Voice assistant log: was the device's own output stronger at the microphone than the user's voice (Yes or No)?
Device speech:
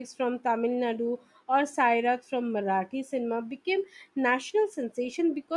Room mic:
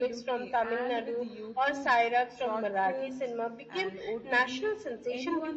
Yes